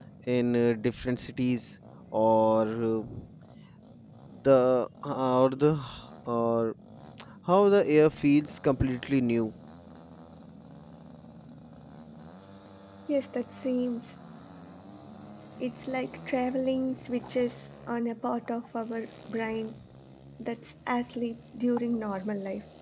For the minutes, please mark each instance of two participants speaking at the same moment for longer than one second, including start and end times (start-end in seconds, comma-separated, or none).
none